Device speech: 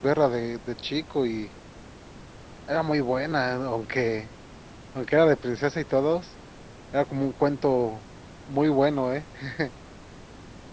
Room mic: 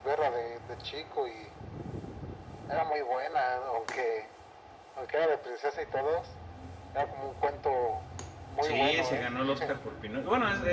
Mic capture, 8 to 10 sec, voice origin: both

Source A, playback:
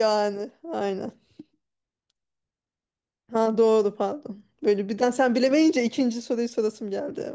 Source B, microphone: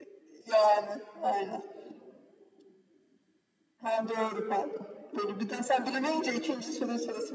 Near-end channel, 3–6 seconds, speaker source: echo only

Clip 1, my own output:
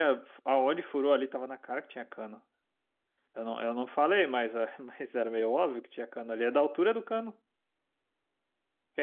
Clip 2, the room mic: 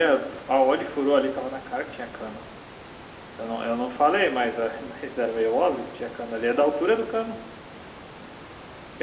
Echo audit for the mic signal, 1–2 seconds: echo only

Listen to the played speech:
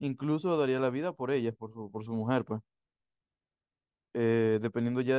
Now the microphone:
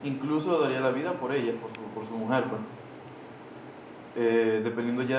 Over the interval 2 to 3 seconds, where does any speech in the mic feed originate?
echo only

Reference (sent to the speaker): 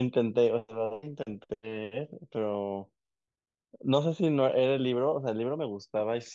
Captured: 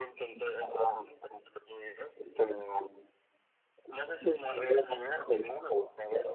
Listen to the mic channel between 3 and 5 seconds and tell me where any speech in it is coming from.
echo only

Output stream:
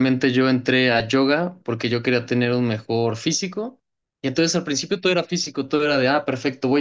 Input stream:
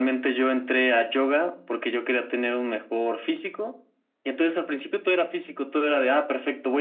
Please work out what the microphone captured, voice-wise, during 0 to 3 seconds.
echo only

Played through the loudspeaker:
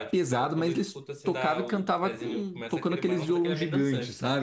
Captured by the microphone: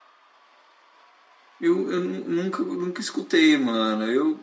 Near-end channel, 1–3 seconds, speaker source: user only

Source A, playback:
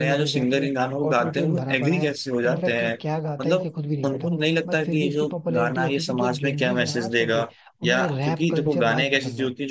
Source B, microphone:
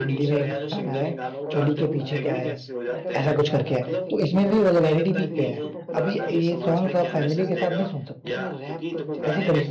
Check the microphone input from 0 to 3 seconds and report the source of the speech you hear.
both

